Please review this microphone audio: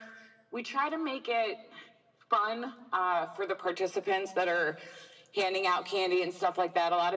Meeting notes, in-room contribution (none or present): none